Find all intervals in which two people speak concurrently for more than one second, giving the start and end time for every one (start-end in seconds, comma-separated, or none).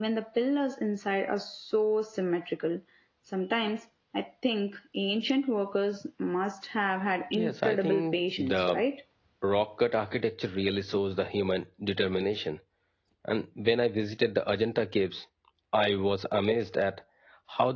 7.4-8.8